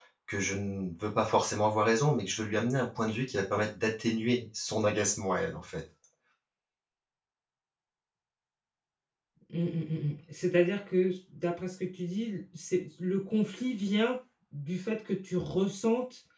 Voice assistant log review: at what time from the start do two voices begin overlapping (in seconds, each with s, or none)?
none